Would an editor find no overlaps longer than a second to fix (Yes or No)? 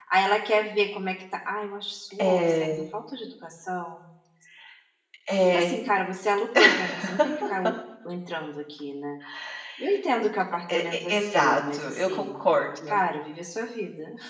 No